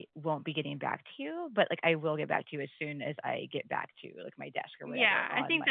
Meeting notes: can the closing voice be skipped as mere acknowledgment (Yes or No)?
No